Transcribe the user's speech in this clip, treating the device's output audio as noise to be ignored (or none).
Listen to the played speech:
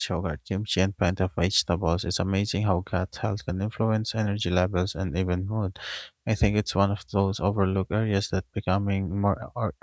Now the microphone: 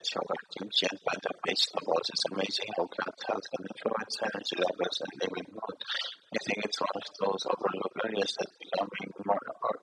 none